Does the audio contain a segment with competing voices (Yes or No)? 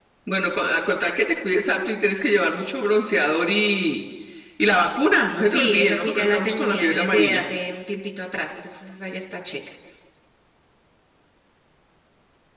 Yes